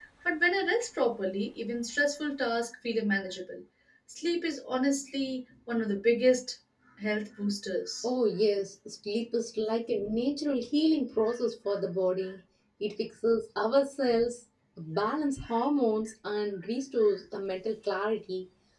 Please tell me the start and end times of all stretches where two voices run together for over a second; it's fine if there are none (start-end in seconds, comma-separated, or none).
none